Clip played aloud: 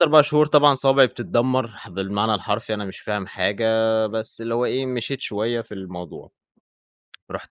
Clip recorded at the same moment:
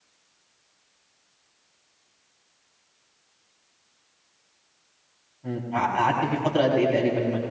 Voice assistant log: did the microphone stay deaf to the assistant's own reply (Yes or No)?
Yes